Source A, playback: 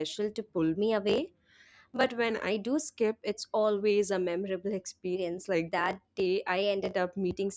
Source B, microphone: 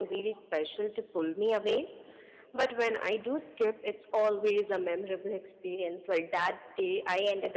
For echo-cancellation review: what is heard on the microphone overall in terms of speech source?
echo only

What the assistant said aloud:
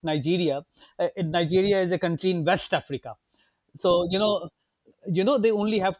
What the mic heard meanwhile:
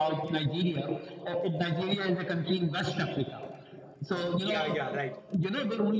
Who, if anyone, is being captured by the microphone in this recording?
both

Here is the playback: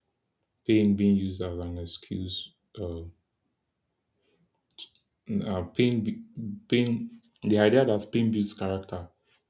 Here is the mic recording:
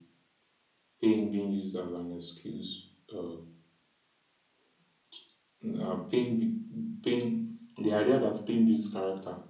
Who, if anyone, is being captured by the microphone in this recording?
echo only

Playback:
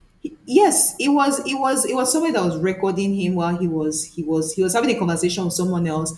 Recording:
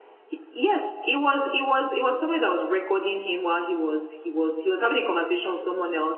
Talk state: echo only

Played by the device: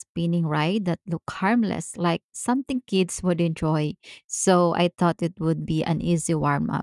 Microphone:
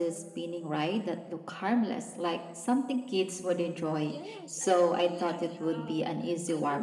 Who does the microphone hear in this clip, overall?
both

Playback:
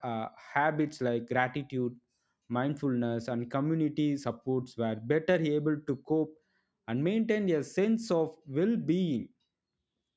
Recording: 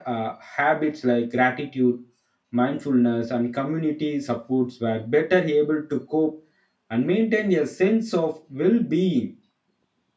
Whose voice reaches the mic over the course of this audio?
echo only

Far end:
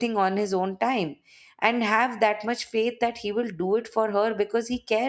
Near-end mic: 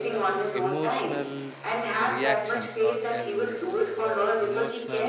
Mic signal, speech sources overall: both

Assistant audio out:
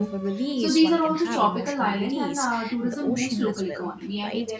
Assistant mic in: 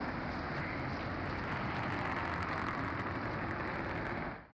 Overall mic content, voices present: neither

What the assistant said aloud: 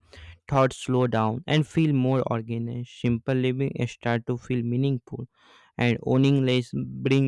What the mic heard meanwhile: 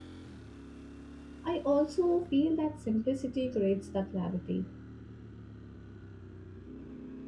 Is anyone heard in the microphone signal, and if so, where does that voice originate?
user only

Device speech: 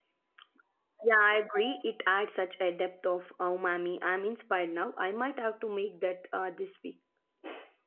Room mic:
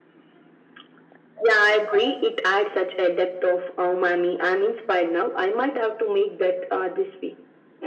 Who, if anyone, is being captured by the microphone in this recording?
echo only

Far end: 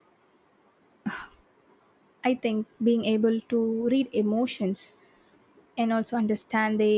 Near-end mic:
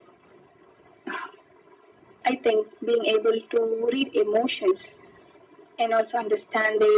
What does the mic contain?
echo only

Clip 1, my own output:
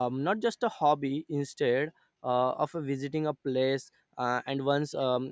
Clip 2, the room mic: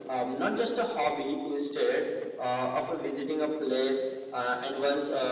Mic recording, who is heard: echo only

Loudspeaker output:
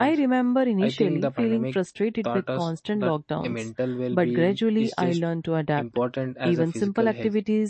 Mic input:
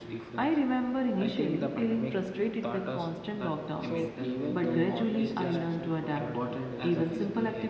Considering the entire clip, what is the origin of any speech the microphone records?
both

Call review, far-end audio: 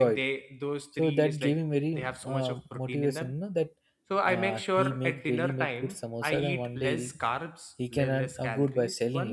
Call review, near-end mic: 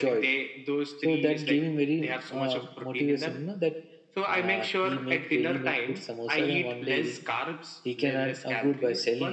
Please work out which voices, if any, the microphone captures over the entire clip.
echo only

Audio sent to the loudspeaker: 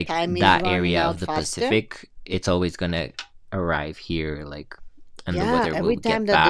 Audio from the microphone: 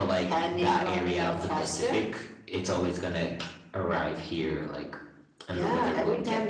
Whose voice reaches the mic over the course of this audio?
echo only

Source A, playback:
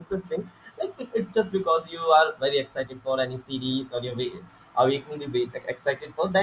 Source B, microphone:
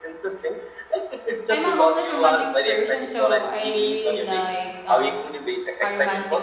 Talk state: both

